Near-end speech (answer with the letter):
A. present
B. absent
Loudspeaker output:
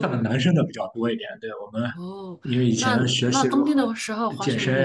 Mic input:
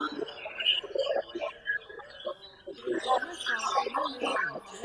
A